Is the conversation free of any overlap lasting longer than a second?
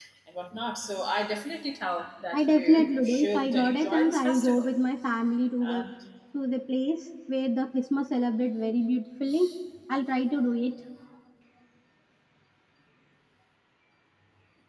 No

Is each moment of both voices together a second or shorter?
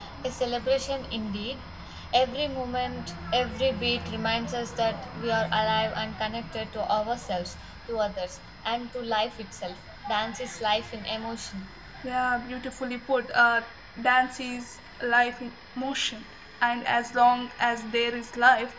Yes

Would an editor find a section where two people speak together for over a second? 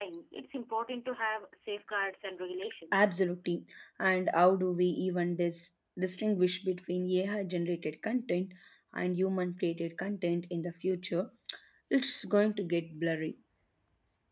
No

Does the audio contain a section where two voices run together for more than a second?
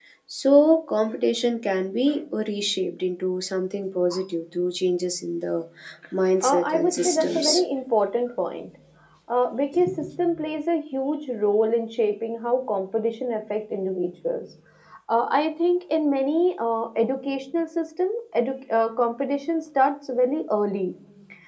Yes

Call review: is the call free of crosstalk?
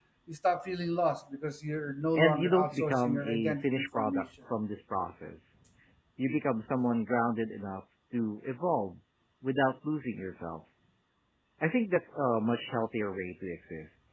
No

